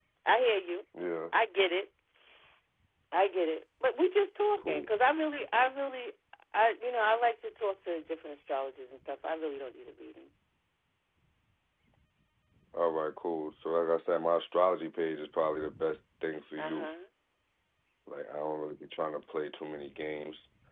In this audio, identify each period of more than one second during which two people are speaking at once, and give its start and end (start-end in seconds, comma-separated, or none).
none